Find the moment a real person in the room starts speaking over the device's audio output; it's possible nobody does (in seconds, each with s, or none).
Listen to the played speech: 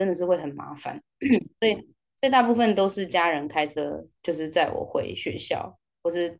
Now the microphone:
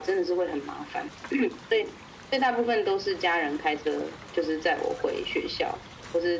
none